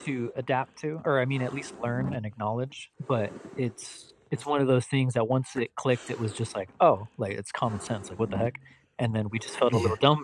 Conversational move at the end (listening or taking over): listening